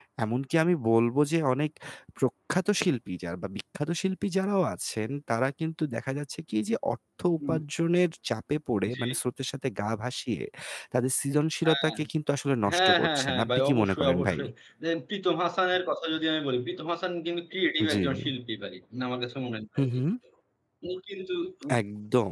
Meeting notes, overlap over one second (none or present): present